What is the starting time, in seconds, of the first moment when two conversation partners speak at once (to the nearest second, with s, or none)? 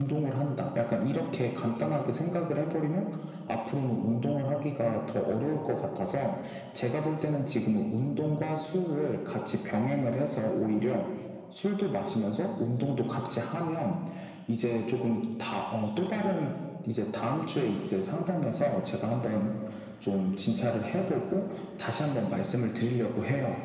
none